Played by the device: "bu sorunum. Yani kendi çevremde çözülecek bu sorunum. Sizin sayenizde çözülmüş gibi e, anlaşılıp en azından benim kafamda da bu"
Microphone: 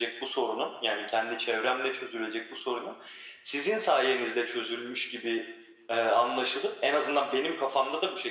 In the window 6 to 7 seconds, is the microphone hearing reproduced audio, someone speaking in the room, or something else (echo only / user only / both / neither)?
echo only